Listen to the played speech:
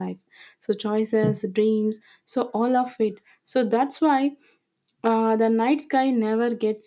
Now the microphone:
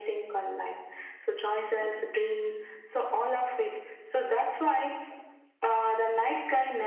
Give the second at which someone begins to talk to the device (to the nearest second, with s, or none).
none